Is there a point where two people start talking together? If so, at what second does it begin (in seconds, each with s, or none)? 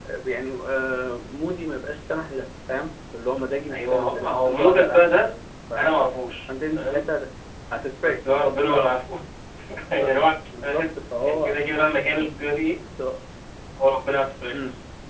3.7 s